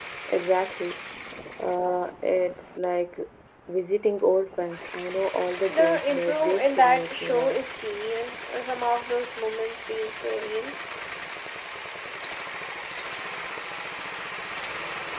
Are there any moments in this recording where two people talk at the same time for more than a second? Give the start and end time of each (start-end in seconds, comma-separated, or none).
5.7-7.6